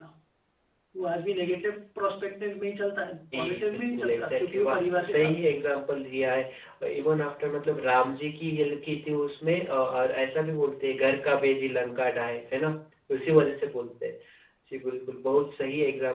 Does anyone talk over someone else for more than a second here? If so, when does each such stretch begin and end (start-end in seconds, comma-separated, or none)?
3.3-5.5